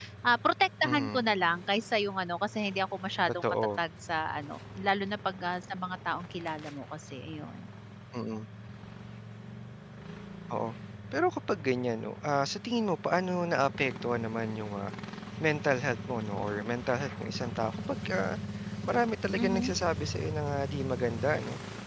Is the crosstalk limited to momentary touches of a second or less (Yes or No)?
Yes